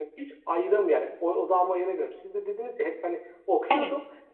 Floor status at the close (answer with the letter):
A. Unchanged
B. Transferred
A